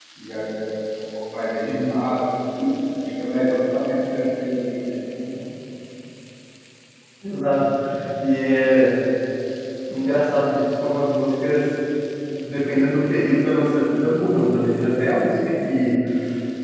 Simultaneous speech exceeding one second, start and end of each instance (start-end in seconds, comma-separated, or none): none